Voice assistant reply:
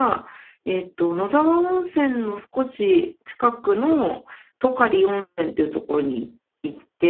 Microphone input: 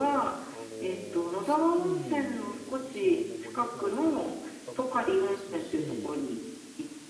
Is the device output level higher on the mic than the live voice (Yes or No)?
Yes